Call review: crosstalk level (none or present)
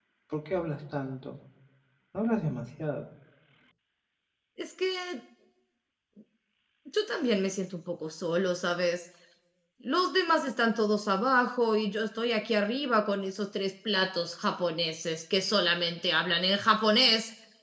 none